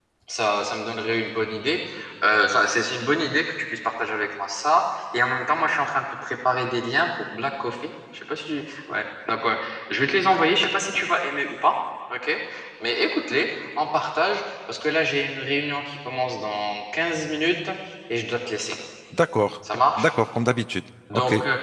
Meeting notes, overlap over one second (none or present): none